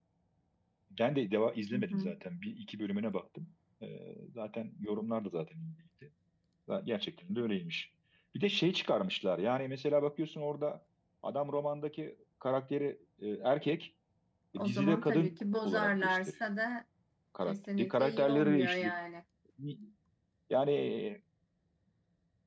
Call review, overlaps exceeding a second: present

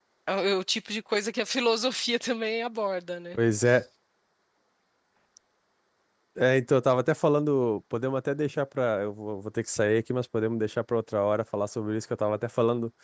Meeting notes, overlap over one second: none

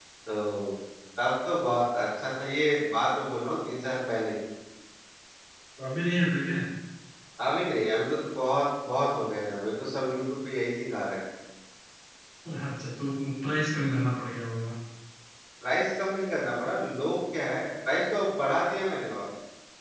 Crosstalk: none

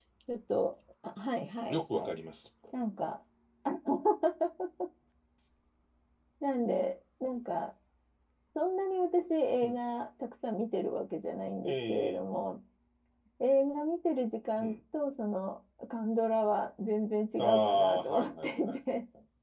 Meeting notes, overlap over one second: present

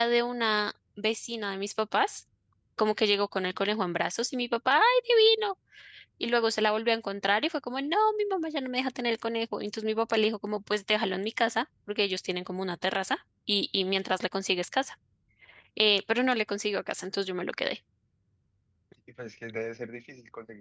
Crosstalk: none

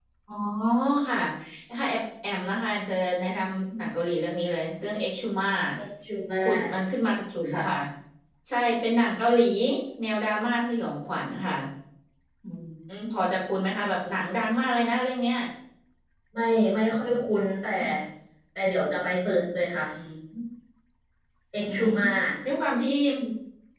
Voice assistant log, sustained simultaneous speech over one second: none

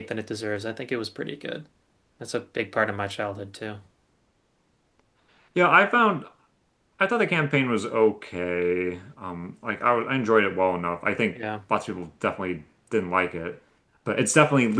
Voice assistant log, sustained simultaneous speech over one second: none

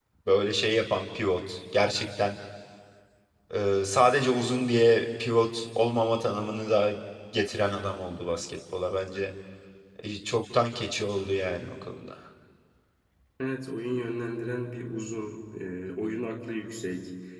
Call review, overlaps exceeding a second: none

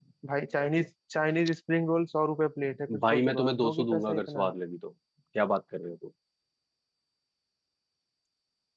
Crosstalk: present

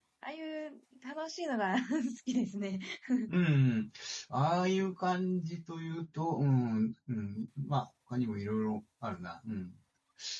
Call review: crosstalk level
none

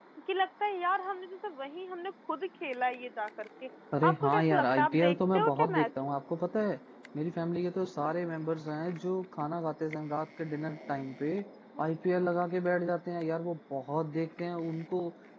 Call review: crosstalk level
present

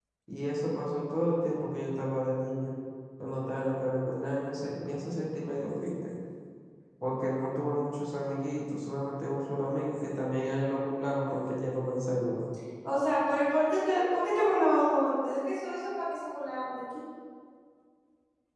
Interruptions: none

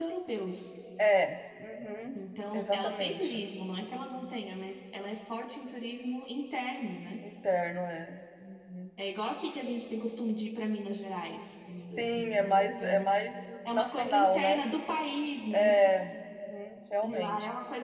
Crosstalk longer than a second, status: present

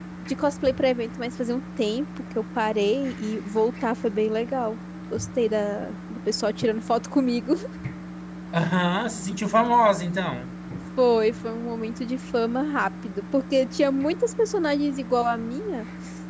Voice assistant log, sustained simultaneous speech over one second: none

